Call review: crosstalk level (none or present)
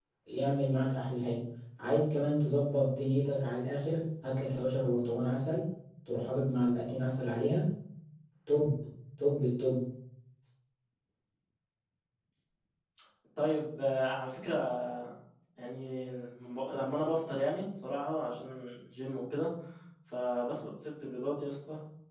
none